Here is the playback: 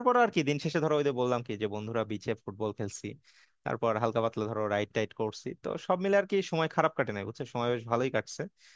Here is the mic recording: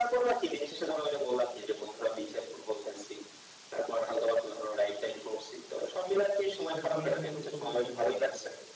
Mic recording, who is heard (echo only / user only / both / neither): both